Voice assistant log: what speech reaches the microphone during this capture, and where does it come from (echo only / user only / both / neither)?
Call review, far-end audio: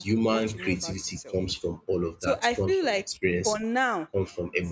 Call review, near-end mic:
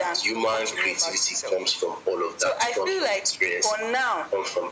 echo only